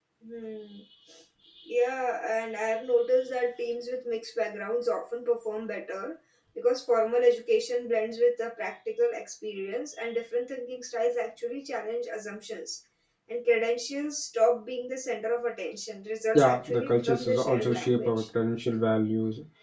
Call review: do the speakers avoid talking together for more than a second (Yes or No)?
No